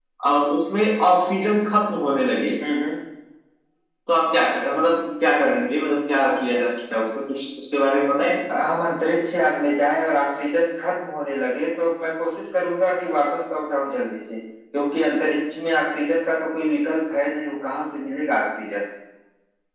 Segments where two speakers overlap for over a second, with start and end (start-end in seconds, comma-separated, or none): none